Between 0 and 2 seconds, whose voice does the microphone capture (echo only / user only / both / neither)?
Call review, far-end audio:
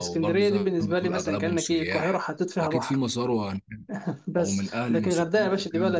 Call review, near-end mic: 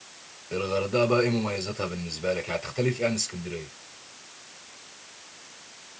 user only